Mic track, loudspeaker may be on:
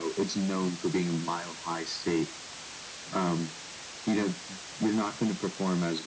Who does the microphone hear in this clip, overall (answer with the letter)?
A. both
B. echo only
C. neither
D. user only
B